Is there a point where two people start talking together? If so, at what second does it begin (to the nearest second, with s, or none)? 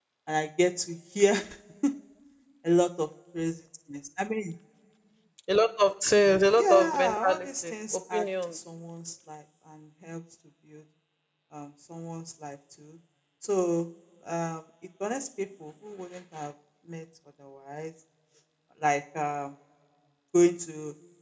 7 s